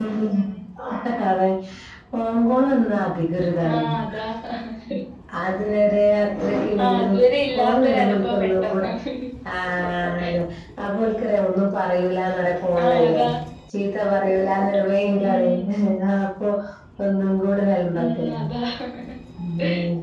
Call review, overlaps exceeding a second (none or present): present